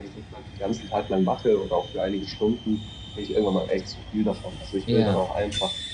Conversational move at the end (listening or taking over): listening